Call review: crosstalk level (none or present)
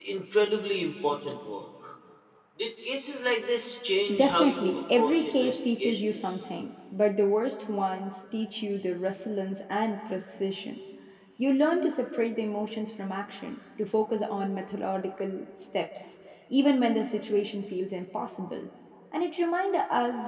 present